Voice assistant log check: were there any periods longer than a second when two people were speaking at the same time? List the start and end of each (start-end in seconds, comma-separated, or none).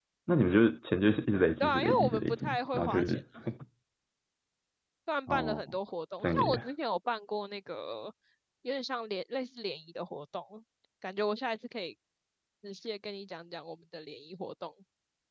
1.6-3.2